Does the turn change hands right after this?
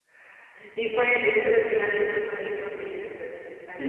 Yes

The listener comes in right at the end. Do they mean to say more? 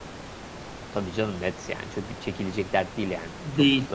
Yes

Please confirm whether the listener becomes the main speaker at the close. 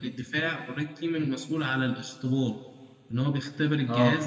No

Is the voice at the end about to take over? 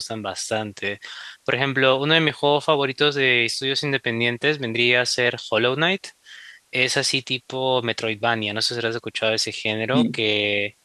No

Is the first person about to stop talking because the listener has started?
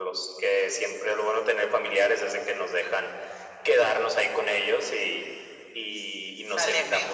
No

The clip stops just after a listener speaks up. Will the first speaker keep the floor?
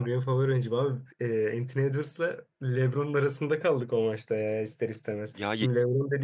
Yes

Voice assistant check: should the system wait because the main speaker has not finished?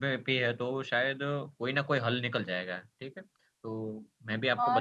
No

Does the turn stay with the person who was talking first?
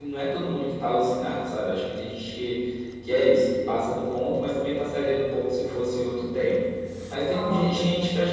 Yes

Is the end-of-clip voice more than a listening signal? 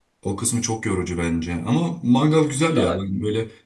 No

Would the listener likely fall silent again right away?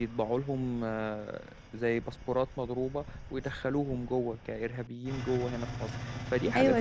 No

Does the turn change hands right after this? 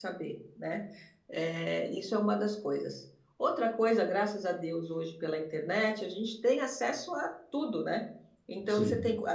No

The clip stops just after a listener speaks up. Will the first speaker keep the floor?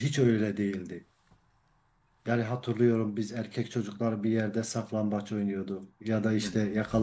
Yes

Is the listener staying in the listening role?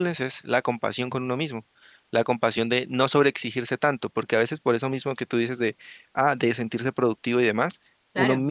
Yes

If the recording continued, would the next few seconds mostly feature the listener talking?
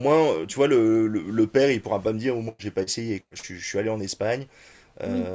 No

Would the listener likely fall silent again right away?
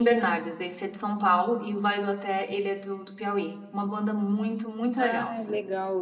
No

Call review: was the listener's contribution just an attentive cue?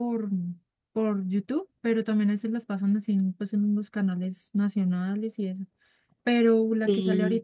Yes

